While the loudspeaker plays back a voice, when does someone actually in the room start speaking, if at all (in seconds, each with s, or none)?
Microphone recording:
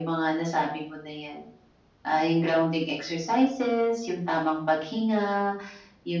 none